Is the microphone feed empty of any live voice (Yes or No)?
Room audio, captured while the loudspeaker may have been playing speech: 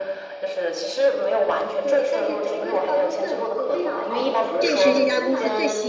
No